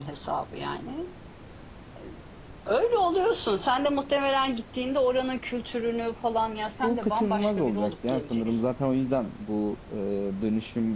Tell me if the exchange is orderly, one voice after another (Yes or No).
No